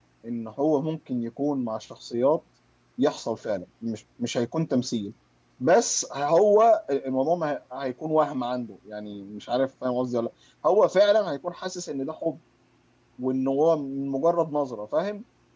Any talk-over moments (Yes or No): No